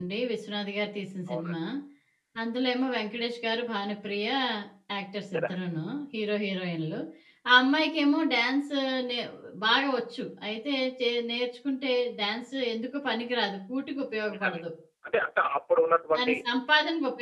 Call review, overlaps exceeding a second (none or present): none